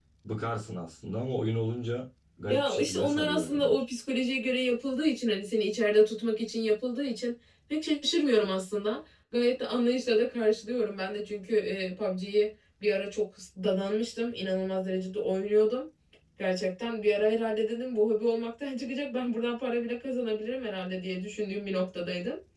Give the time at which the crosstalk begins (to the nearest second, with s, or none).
2 s